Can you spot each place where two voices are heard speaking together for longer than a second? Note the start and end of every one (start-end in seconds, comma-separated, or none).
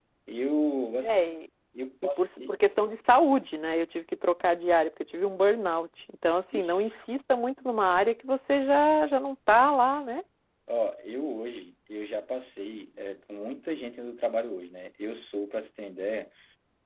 none